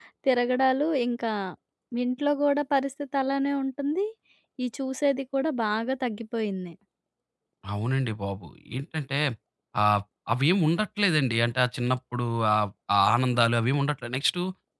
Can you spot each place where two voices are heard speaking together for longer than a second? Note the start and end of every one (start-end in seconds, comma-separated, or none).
none